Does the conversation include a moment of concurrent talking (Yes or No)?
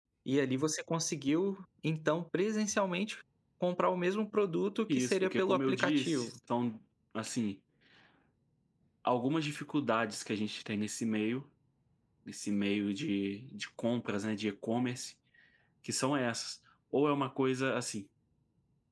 Yes